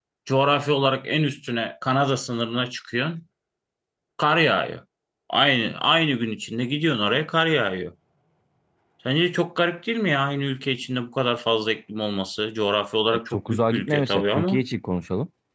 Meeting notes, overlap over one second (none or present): present